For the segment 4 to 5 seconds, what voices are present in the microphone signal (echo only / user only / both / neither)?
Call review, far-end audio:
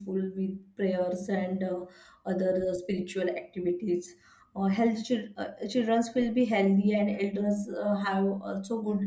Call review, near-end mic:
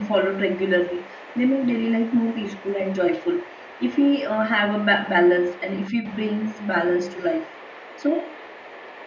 user only